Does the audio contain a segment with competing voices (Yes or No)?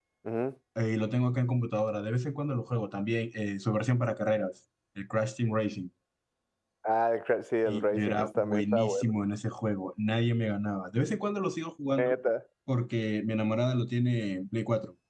Yes